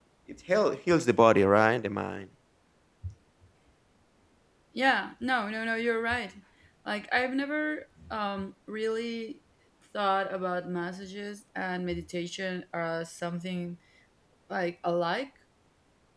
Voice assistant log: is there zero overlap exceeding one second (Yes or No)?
Yes